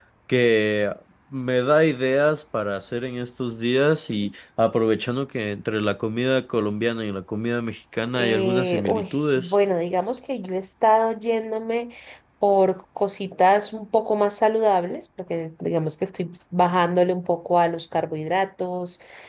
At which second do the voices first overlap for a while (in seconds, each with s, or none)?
8.2 s